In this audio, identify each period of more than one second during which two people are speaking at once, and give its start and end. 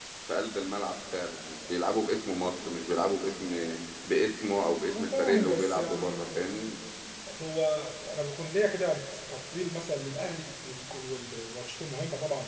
4.9-6.3

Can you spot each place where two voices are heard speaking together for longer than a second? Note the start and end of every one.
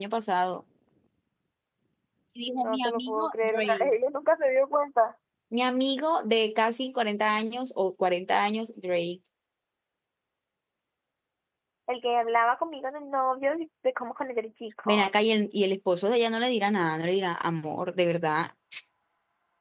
2.5-3.9

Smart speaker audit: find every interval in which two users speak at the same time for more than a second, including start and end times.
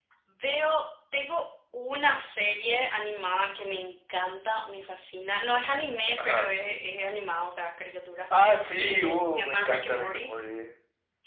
8.8-10.3

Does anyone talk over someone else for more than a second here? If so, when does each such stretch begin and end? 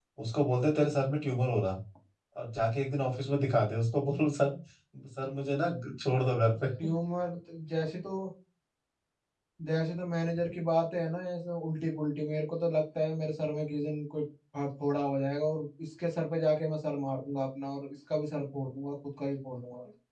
none

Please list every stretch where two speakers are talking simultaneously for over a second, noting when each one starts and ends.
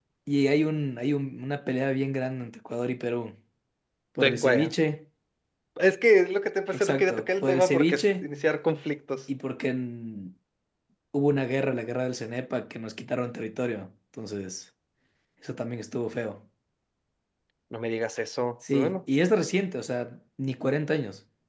6.7-8.3

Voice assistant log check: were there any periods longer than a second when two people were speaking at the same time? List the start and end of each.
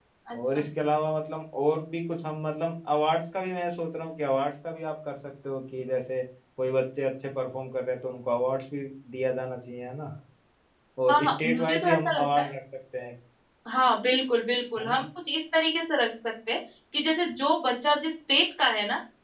11.1-12.5

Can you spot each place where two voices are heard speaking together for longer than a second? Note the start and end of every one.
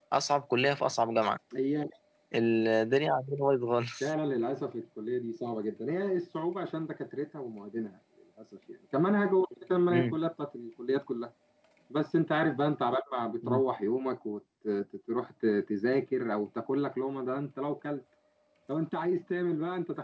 none

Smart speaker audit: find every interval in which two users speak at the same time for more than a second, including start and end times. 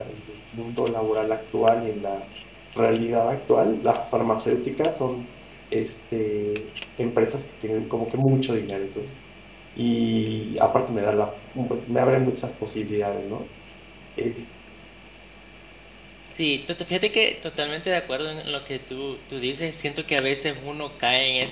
none

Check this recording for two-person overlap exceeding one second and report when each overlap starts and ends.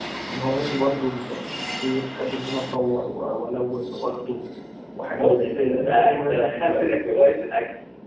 5.2-7.0

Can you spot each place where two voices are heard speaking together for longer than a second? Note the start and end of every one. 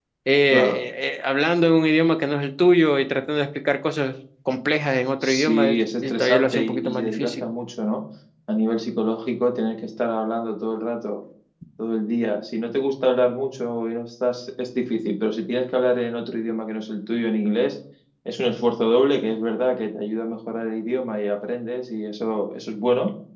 5.2-7.4

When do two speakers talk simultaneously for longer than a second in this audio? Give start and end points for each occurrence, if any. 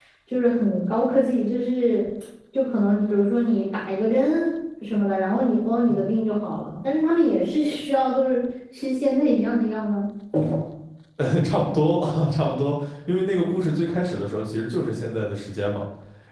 none

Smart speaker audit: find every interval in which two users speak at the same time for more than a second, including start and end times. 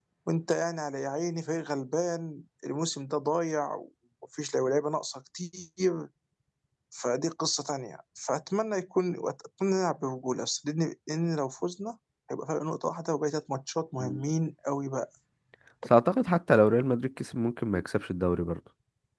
none

